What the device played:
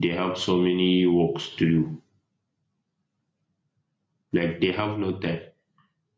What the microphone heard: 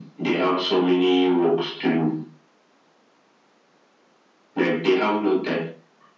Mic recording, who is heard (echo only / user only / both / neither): echo only